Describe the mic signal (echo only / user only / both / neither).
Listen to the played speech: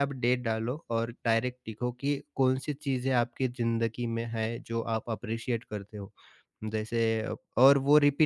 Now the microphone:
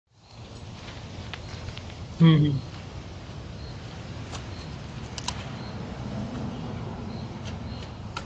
user only